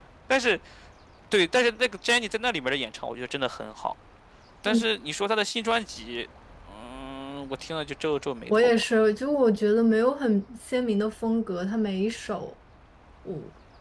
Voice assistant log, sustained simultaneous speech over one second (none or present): none